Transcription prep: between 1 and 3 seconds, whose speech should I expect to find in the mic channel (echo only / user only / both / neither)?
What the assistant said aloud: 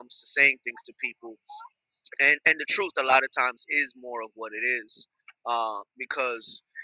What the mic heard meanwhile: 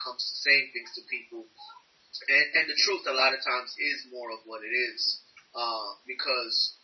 echo only